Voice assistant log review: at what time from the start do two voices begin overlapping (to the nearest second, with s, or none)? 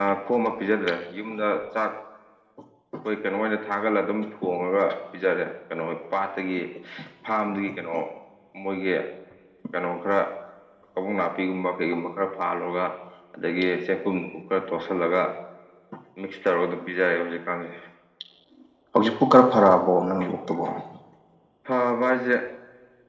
none